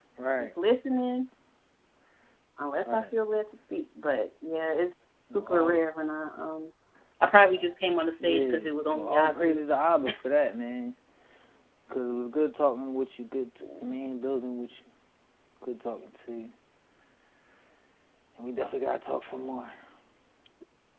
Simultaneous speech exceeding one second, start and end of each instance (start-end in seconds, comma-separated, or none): 8.2-9.6